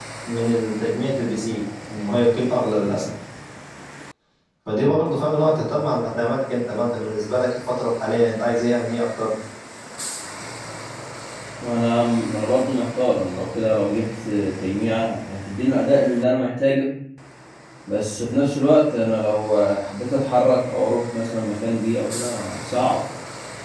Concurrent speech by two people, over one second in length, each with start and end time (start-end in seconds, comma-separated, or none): none